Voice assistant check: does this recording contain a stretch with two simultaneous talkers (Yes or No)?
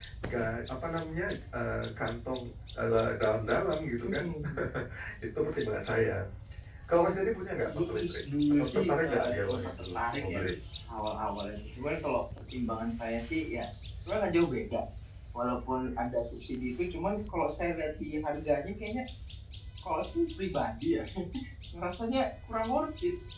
Yes